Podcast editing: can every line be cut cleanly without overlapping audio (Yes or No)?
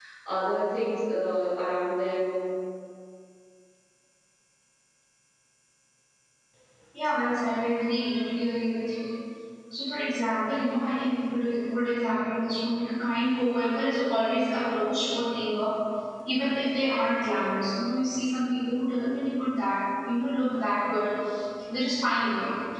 Yes